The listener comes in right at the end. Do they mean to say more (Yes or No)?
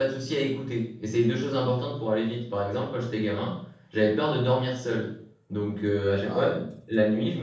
No